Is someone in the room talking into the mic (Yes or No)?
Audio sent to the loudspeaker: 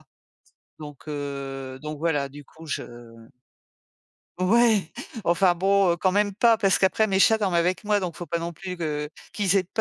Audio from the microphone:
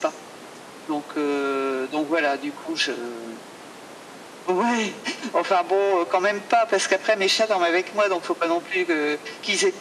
No